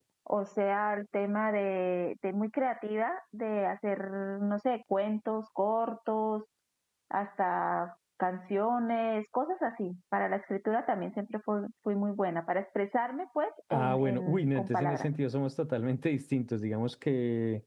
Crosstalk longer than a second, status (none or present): present